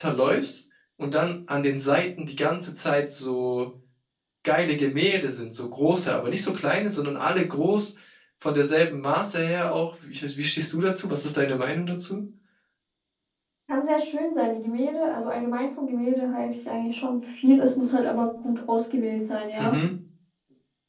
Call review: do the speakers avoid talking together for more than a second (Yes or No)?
Yes